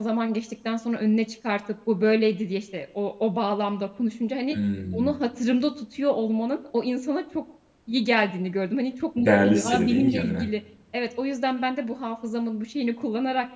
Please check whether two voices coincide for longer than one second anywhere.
Yes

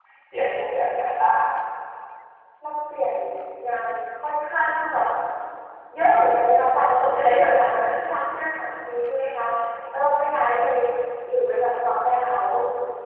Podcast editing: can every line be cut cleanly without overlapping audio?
Yes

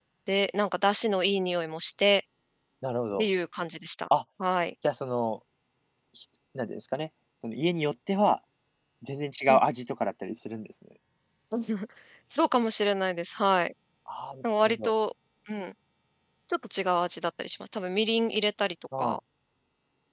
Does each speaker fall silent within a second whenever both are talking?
Yes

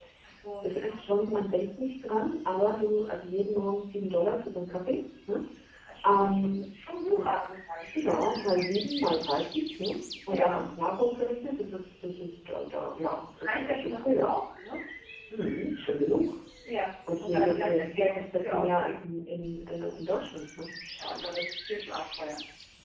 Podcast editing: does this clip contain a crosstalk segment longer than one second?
Yes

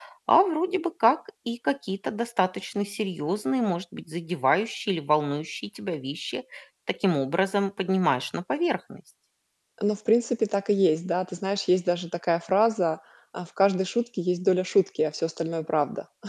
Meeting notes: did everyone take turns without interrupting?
Yes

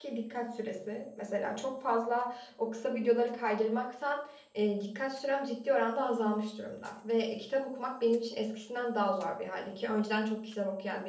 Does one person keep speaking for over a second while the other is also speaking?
No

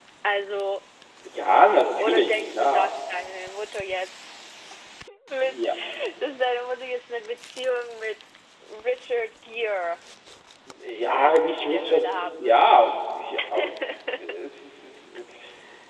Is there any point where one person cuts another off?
Yes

